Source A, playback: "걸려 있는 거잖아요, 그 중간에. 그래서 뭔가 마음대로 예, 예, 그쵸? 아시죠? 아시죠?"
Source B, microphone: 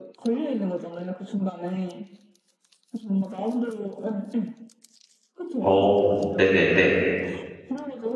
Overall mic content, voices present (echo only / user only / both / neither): both